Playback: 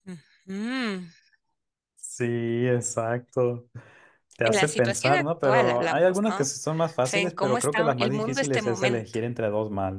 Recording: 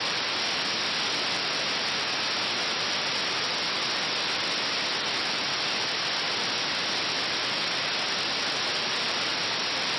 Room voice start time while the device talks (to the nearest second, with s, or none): none